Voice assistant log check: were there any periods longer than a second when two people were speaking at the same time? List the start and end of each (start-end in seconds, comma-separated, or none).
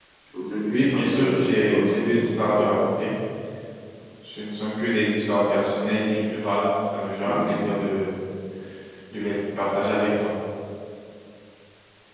0.7-2.3